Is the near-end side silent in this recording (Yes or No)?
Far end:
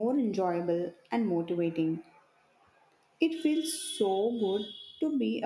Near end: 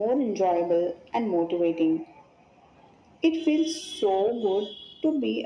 Yes